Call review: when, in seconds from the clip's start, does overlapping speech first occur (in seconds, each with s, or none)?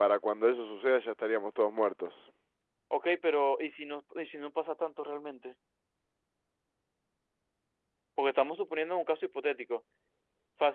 none